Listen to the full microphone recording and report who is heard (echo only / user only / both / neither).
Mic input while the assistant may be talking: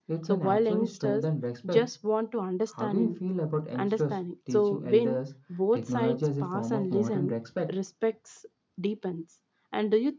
both